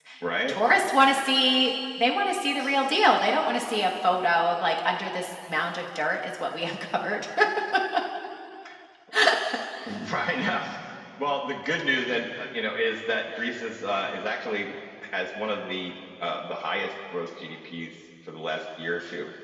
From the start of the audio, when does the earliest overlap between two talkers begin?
none

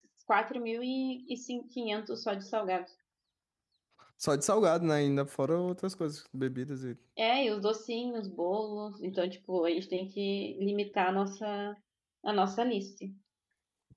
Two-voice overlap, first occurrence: none

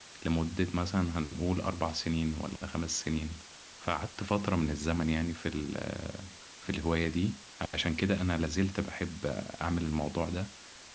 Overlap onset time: none

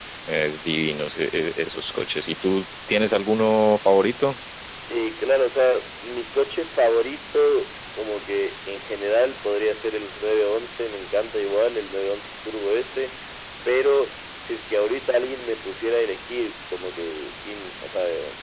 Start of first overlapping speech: none

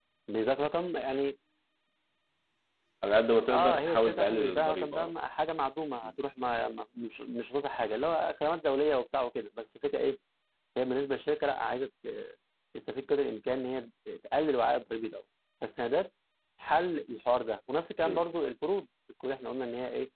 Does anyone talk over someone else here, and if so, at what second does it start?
3.5 s

